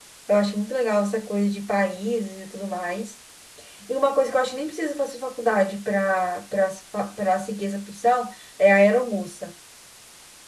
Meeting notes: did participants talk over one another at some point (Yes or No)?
No